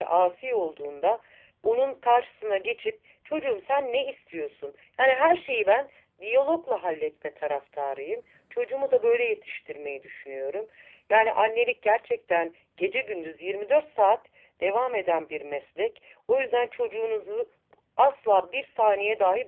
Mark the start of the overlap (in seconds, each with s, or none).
none